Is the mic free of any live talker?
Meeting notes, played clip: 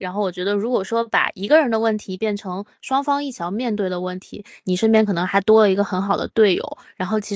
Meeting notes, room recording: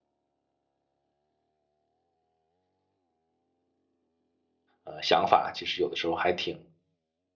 No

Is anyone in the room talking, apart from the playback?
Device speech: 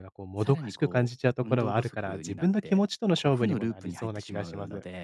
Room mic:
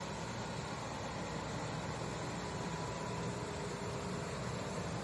No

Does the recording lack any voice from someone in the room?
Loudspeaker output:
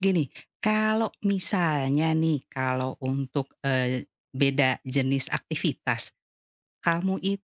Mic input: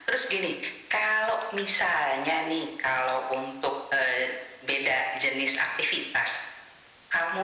Yes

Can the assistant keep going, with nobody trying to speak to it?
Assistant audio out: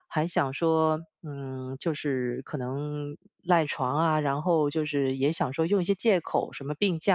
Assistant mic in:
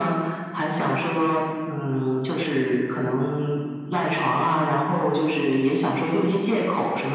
Yes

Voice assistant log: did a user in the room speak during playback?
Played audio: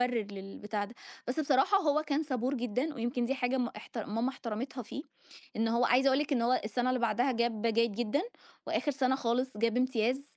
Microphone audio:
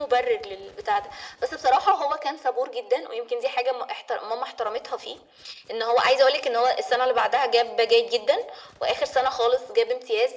No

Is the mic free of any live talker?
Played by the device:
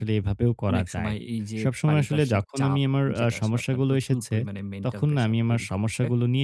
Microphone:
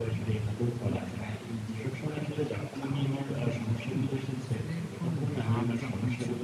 No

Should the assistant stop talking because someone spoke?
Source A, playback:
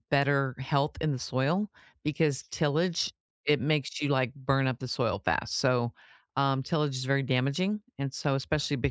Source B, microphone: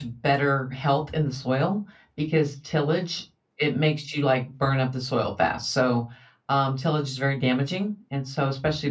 No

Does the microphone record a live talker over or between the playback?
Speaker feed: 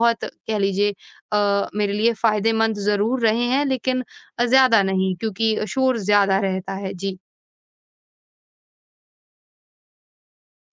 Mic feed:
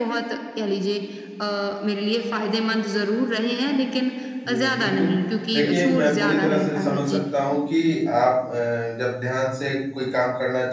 Yes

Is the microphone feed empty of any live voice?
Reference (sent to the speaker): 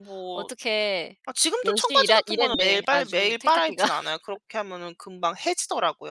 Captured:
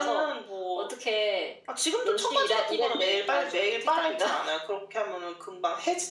Yes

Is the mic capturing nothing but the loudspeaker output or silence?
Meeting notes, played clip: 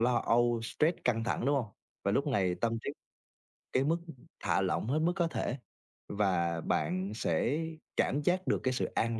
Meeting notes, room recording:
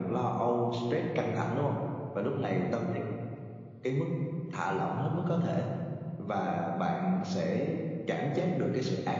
Yes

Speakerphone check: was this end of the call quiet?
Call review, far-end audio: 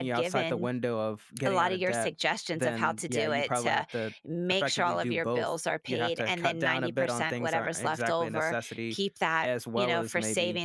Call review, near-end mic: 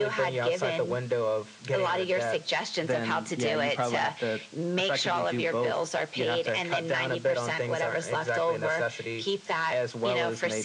Yes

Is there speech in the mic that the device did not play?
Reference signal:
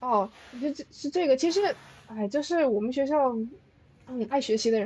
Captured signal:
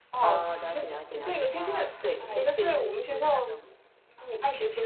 Yes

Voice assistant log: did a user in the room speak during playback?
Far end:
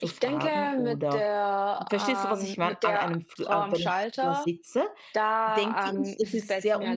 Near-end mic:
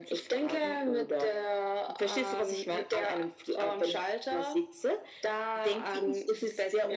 No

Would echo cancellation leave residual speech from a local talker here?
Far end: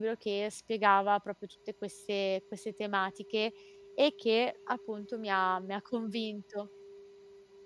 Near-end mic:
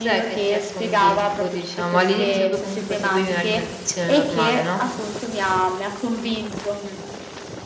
Yes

